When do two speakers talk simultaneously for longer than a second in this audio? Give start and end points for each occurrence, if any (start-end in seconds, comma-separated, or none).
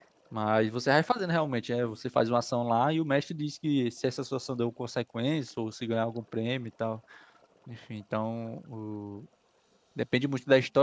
none